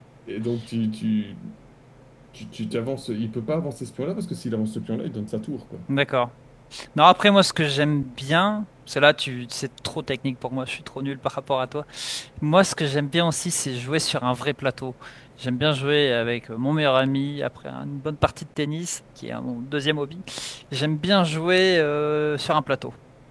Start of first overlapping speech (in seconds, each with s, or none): none